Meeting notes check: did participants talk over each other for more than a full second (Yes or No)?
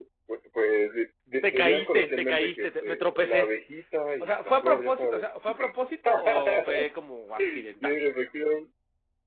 Yes